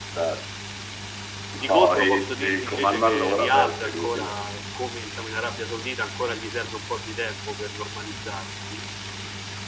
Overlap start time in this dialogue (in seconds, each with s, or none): 1.6 s